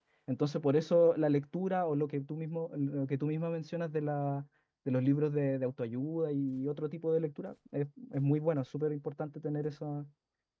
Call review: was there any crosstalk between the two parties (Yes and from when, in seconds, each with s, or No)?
No